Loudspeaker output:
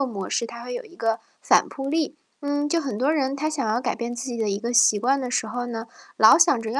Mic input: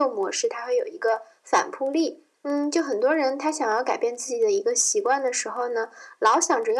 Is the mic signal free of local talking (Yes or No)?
Yes